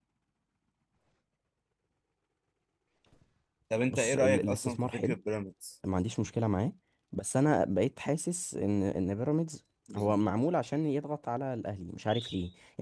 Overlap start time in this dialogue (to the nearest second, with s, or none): 4 s